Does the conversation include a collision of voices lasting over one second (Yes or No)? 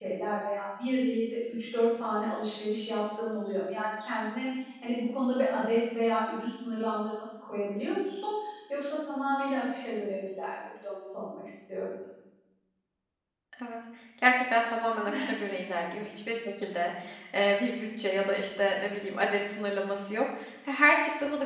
No